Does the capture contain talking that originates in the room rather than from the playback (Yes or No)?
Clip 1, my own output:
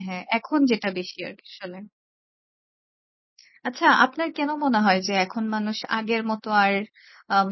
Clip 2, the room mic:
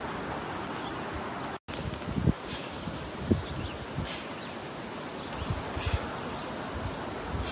No